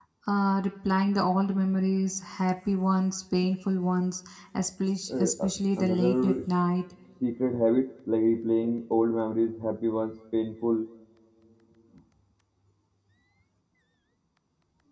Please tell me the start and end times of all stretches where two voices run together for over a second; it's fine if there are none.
5.1-6.4

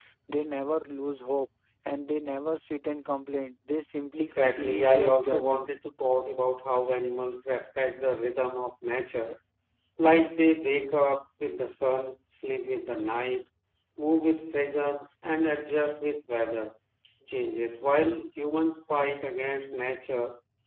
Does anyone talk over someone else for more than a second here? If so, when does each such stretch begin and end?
4.2-5.7

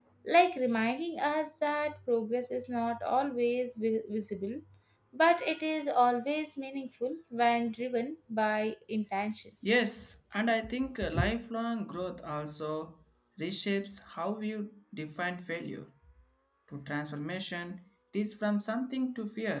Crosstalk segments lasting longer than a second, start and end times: none

